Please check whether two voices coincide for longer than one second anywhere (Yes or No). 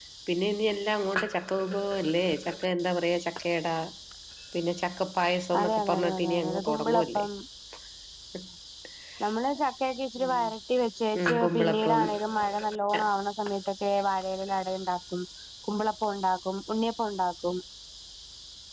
Yes